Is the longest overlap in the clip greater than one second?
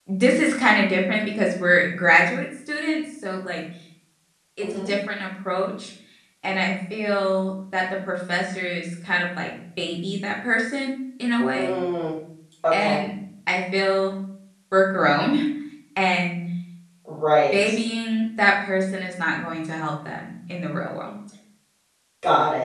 No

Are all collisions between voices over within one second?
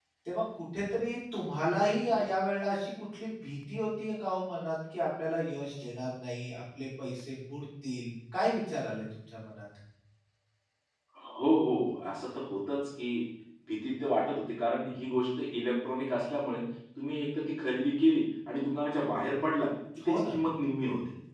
Yes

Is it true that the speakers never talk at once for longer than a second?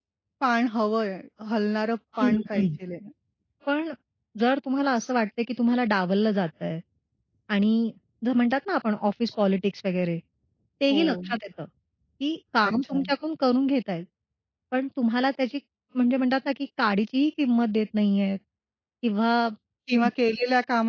Yes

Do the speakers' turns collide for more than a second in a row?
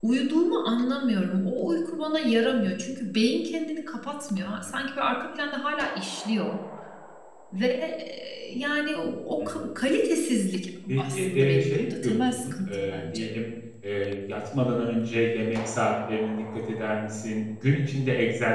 Yes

